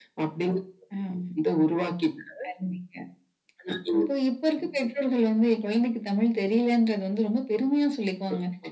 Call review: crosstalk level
none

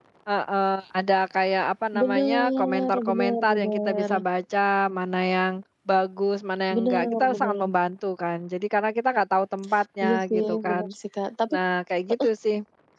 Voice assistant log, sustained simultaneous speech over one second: present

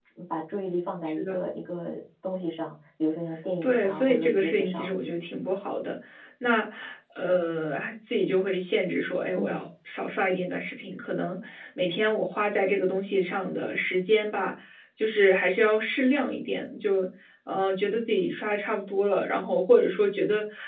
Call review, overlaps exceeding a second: present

